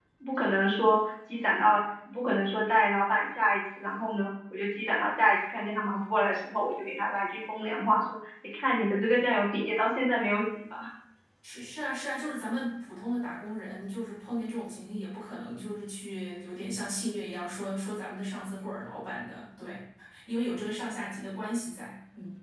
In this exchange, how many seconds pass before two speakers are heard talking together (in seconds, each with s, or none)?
none